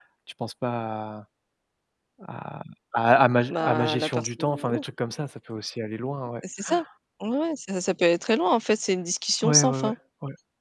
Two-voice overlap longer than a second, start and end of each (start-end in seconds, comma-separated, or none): 3.5-4.8